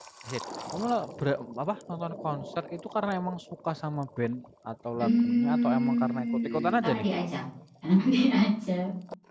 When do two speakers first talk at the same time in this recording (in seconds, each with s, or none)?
5.0 s